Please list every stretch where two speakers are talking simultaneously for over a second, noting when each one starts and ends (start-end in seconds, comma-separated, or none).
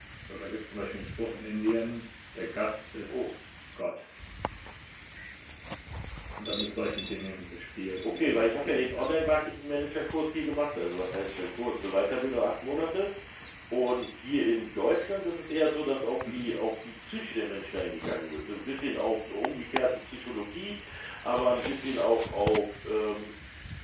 8.0-9.5